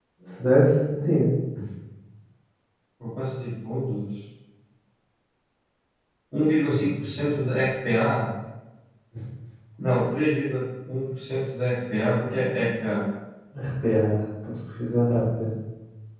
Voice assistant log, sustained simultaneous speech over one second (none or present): none